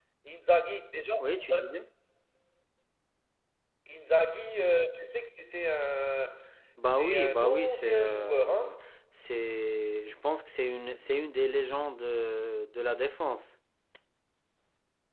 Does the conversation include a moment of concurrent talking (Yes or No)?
Yes